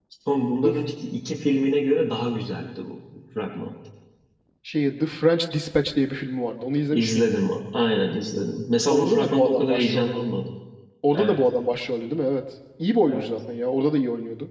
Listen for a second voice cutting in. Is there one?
Yes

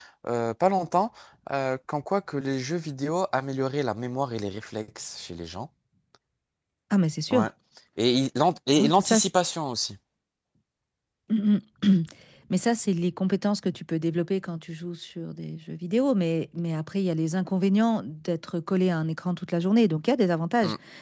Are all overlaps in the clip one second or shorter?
Yes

